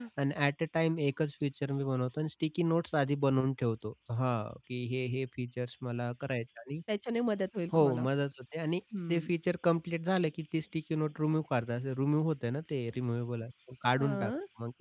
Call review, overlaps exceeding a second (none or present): none